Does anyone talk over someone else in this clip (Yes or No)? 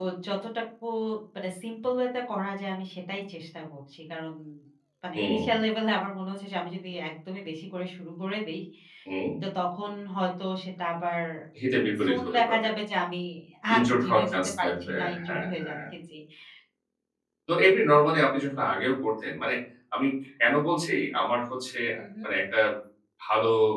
Yes